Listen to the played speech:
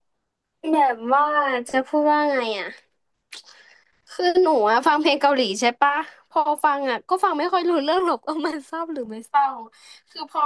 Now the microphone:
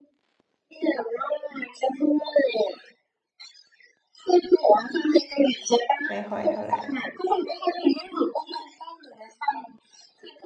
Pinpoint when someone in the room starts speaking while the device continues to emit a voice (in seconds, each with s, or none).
6.1 s